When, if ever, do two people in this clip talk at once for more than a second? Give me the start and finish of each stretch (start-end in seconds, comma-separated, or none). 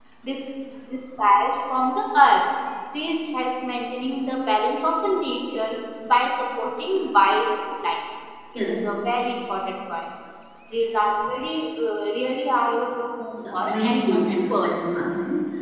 13.4-14.7